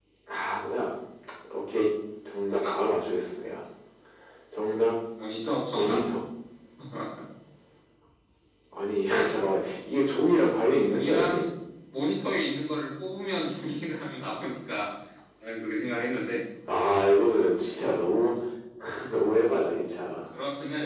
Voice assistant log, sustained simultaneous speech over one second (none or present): none